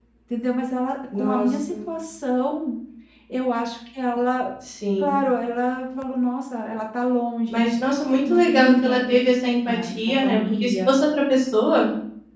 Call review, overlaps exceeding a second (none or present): present